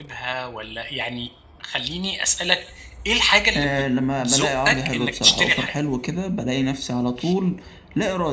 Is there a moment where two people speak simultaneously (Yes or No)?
Yes